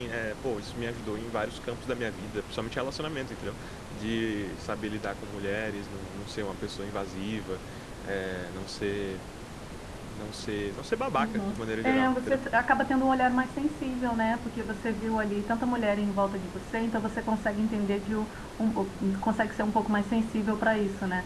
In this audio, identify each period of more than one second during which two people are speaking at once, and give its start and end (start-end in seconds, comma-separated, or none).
11.2-12.4